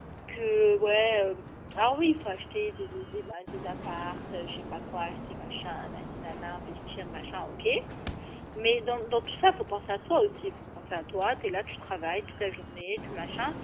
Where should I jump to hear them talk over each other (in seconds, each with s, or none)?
none